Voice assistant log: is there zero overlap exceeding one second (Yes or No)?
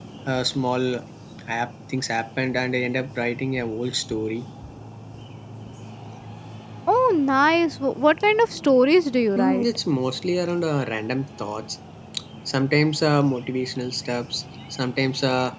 Yes